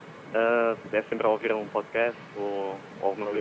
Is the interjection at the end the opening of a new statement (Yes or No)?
Yes